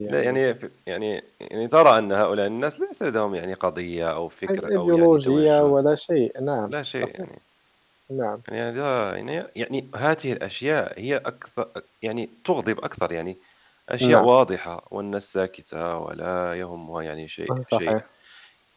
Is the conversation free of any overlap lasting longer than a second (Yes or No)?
No